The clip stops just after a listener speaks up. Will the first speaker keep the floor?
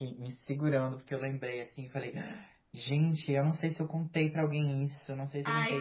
No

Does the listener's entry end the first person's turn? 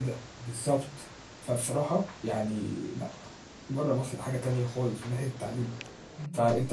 No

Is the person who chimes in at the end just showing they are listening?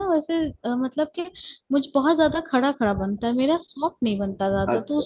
No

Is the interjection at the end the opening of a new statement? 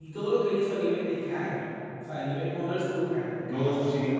Yes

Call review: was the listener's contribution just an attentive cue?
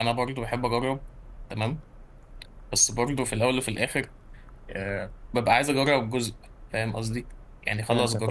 Yes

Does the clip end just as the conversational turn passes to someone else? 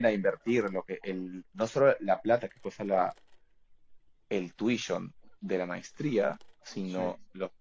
No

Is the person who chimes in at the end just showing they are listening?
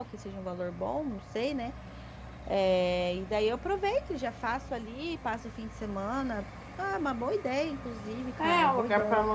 No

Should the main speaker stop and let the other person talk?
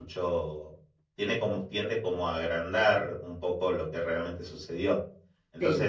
No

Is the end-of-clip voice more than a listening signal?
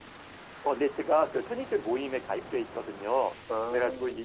No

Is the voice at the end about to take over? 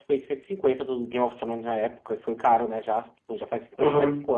Yes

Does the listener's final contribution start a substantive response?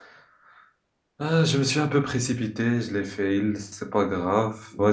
No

